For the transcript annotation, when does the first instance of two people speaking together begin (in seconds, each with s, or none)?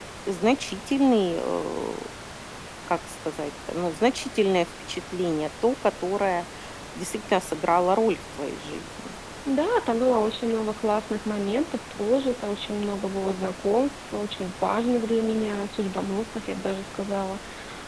none